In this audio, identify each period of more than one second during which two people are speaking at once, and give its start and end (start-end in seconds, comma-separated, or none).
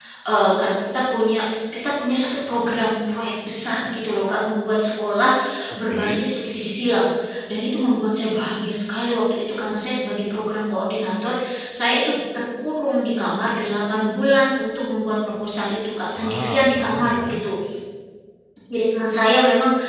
16.1-17.4